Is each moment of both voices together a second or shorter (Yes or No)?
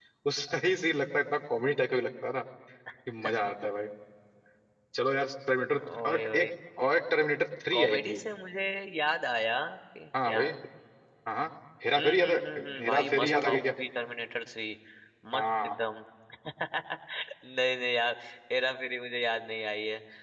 No